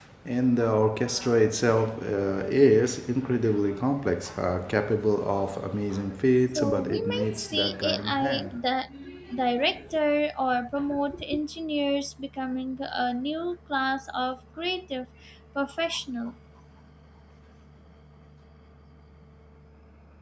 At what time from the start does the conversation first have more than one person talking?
6.6 s

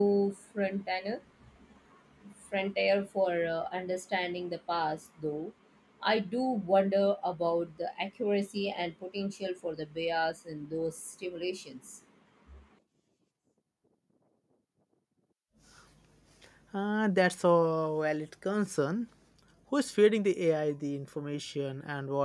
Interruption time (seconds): none

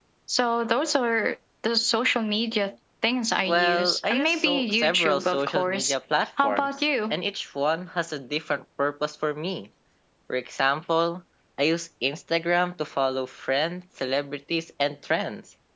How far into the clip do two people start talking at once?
3.5 s

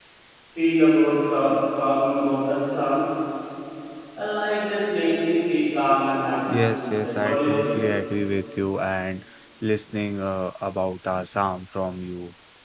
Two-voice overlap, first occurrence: 6.5 s

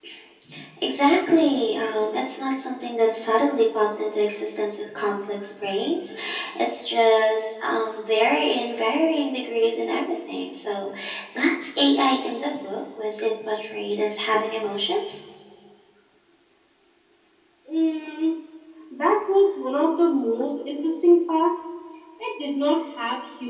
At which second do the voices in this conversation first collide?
none

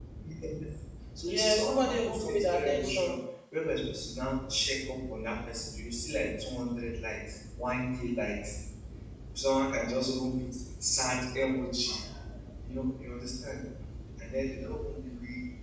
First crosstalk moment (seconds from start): 1.2 s

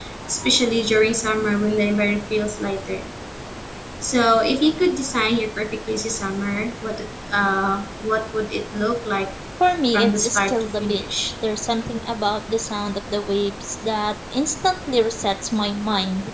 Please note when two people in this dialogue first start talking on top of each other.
9.9 s

